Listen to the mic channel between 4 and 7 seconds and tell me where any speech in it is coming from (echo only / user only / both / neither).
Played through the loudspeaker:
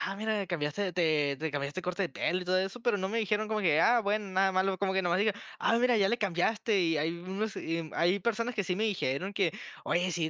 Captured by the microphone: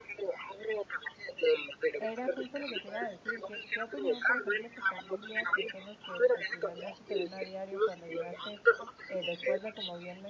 both